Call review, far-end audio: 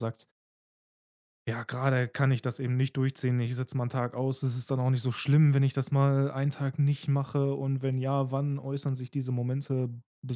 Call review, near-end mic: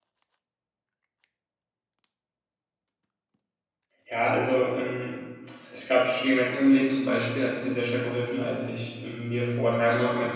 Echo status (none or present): none